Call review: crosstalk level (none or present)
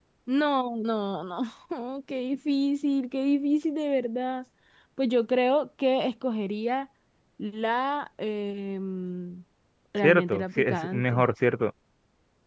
present